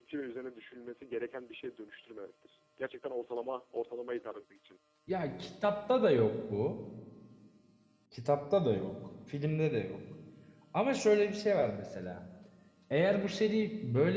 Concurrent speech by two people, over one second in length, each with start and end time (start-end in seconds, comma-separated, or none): none